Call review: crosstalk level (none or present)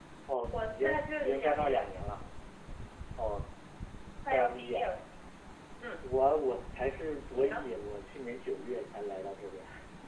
present